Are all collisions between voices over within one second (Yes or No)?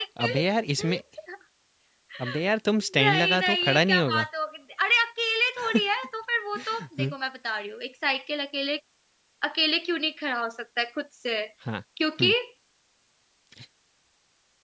No